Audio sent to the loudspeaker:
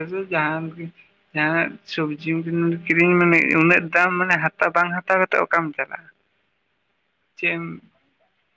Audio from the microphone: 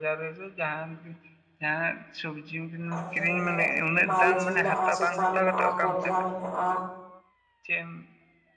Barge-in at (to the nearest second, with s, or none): 3 s